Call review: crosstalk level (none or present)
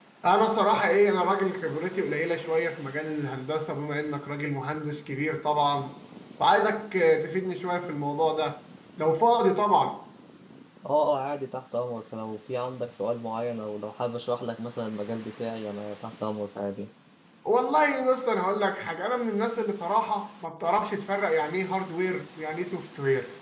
none